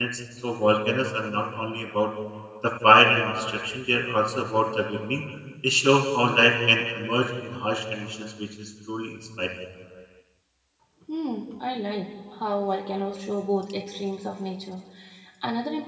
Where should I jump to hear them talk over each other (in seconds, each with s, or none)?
none